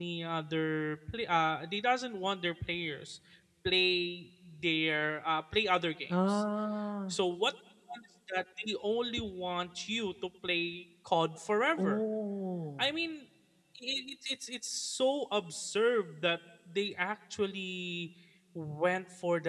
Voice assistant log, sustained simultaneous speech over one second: none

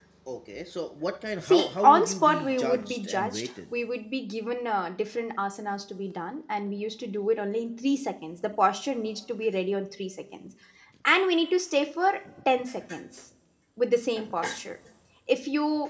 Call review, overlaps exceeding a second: present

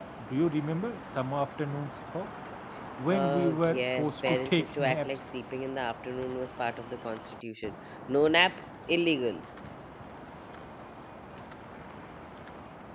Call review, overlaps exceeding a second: present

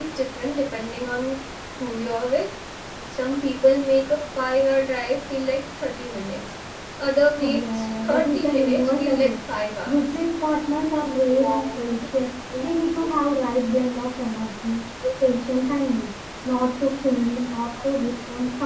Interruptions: present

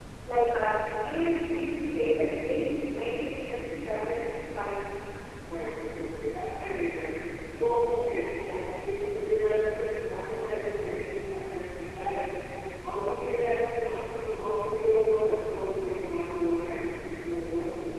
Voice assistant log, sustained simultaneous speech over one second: none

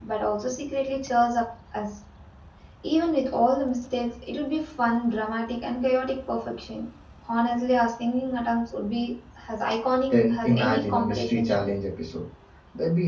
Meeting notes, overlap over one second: present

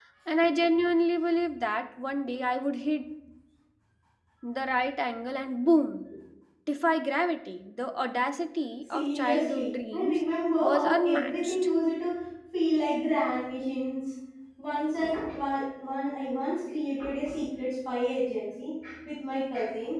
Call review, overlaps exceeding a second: present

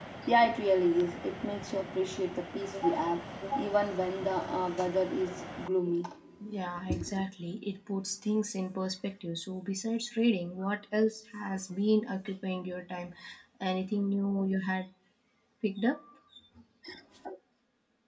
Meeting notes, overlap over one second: none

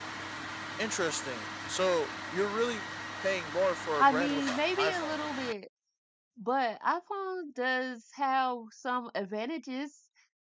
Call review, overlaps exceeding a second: present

